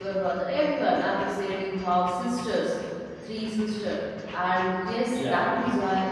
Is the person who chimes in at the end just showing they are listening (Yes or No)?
Yes